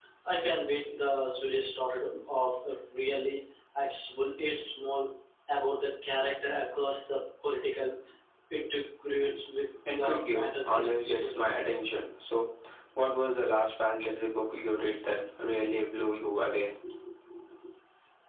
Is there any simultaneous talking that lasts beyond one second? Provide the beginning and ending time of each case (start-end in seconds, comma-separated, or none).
10.0-11.4